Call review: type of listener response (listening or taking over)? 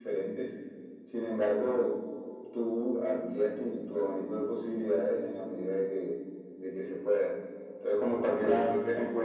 listening